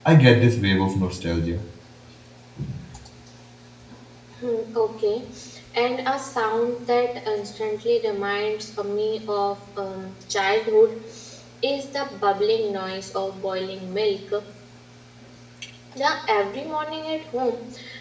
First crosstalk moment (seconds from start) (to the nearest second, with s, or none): none